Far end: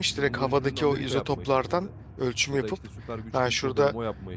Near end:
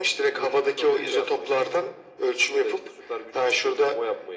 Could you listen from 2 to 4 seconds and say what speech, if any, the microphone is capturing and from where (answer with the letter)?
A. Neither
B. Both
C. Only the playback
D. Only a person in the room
C